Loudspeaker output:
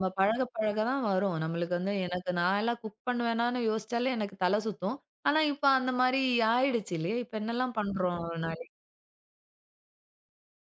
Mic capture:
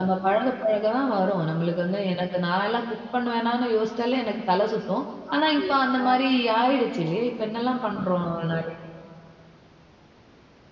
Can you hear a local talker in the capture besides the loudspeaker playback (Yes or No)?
Yes